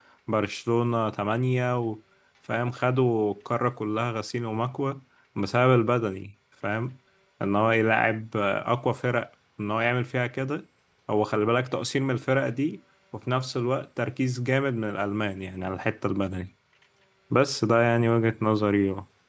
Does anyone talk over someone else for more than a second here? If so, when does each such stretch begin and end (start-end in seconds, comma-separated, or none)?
none